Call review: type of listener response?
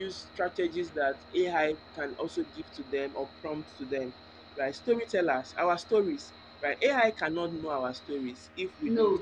listening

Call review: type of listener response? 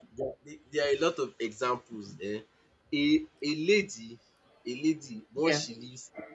listening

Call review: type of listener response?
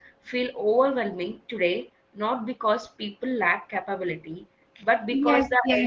taking over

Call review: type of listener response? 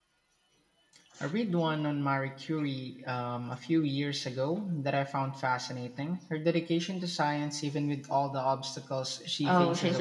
taking over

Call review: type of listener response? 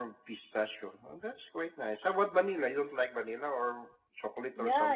taking over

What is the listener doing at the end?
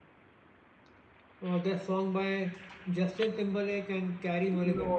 taking over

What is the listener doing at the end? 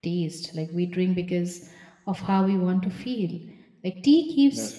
listening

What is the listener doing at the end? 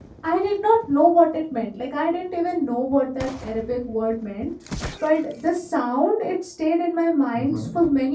listening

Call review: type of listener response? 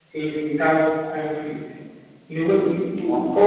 listening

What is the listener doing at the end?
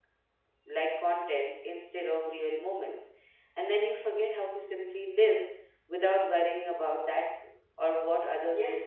taking over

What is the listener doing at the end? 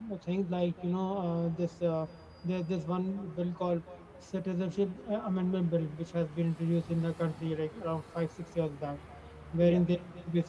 listening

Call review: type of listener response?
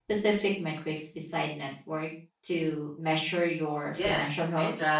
taking over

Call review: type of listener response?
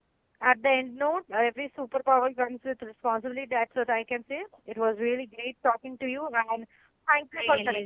taking over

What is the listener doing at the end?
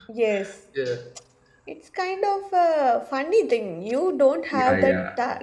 listening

